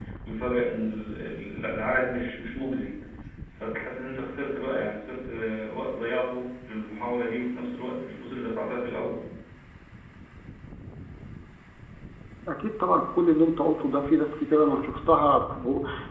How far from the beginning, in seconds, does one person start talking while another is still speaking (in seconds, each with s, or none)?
none